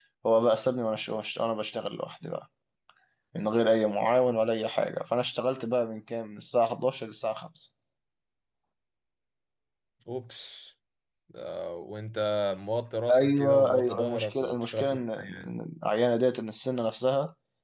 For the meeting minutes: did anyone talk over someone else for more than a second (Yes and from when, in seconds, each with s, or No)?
Yes, from 13.1 s